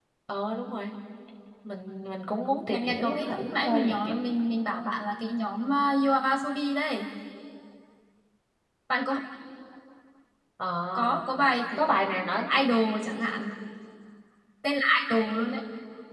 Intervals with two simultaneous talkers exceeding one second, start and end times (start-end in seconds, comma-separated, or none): 2.7-4.2